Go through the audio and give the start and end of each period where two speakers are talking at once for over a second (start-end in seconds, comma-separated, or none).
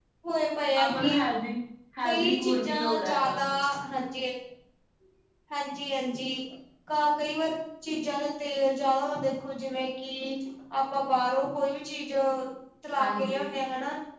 2.0-3.4